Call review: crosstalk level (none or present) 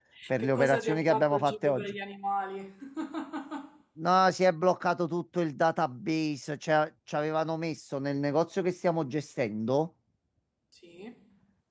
present